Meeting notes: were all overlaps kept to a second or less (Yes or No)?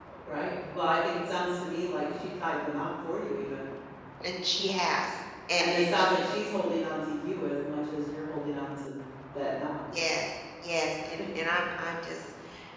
Yes